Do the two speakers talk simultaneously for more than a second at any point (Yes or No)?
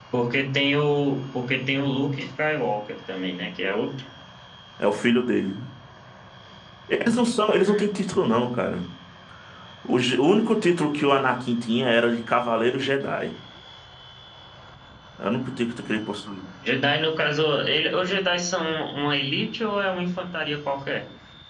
No